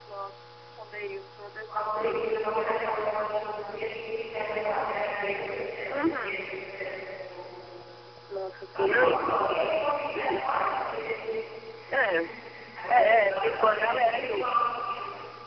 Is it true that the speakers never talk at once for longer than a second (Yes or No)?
No